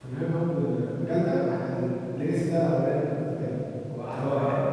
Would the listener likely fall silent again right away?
No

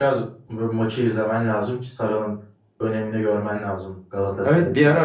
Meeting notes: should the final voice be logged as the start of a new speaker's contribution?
Yes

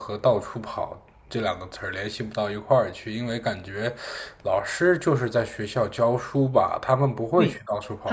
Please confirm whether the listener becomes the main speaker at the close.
Yes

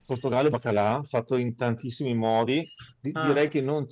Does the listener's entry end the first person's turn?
No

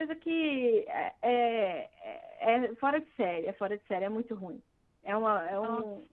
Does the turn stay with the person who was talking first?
Yes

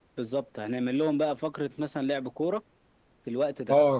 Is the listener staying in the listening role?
No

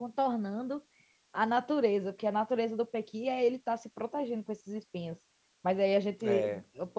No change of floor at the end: Yes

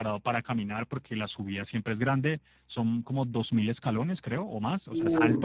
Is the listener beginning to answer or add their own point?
No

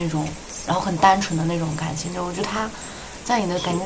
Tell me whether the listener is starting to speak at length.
No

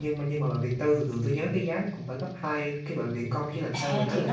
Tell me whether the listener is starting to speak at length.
Yes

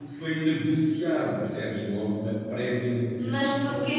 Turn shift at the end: Yes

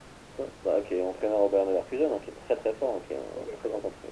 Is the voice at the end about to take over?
Yes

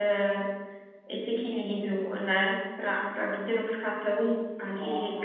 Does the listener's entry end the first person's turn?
Yes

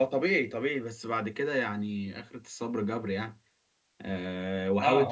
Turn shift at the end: No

